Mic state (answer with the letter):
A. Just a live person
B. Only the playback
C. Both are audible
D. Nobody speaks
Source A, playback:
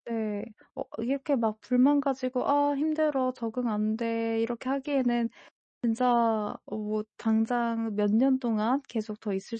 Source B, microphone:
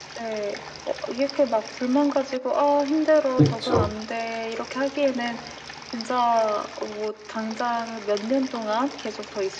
C